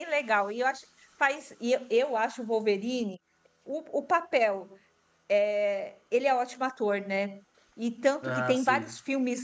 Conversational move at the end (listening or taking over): listening